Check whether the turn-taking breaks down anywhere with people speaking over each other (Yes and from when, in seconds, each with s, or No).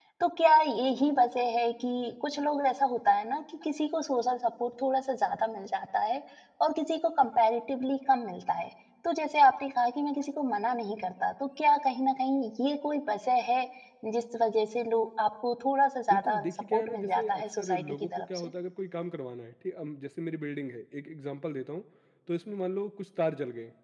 Yes, from 16.1 s